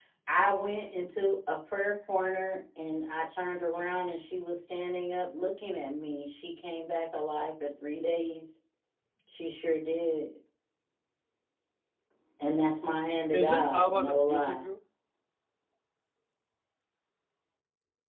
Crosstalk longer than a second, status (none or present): present